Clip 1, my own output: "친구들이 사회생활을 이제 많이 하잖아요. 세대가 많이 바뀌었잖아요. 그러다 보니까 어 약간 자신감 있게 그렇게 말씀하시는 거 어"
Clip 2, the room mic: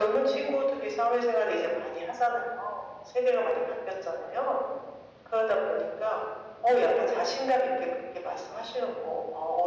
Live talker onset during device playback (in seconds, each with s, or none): none